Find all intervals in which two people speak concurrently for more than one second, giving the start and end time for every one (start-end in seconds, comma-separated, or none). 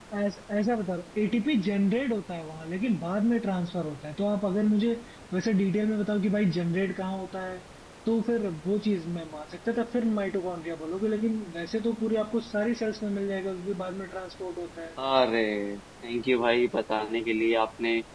none